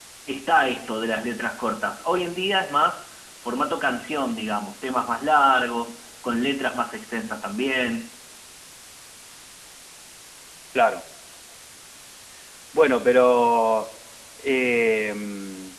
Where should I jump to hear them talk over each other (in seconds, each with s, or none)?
none